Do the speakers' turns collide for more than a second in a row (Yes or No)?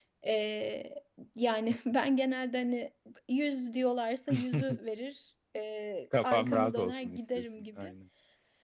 Yes